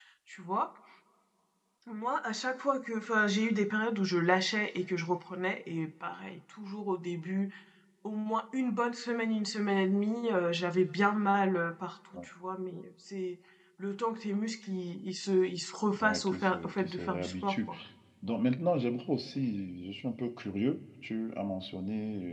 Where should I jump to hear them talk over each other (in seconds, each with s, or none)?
15.9 s